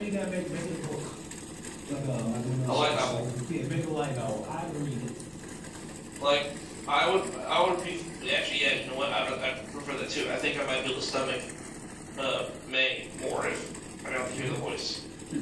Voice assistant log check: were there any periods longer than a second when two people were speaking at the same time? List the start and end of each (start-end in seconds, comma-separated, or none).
none